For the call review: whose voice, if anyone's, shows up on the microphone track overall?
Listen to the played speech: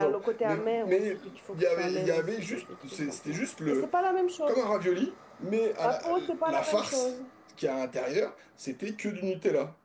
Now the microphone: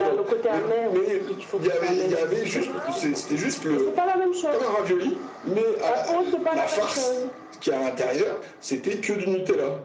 both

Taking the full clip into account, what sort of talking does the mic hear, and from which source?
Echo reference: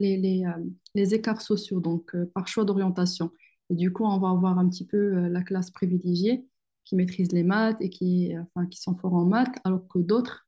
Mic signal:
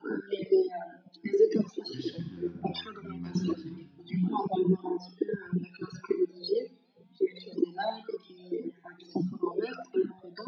both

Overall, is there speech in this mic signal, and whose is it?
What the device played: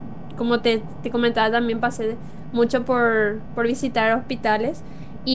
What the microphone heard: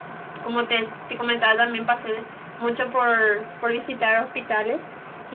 echo only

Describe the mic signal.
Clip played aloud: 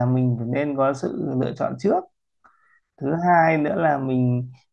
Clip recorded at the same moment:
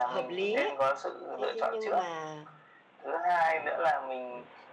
both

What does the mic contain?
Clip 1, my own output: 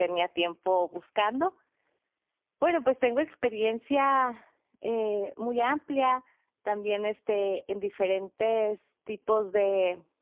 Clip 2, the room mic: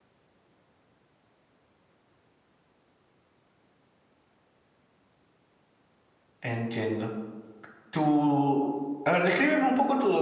user only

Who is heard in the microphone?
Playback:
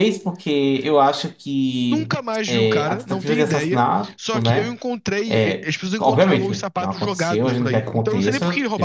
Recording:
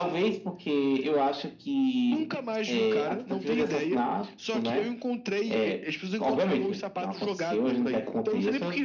echo only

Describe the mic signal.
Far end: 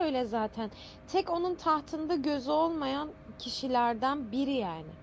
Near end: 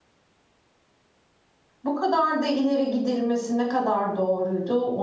user only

